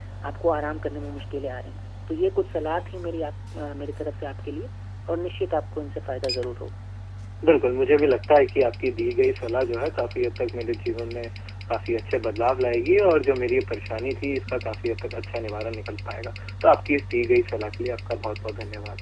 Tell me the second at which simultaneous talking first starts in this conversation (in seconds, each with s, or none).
none